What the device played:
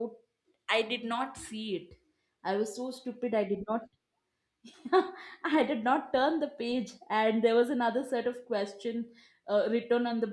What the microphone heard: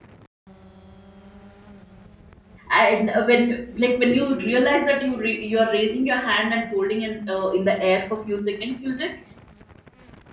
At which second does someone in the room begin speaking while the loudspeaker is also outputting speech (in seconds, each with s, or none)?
2.7 s